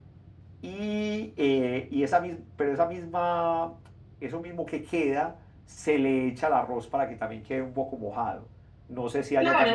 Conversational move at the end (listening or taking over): taking over